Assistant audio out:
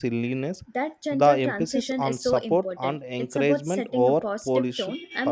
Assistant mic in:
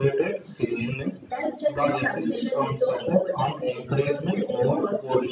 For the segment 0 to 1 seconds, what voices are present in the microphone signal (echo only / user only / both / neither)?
echo only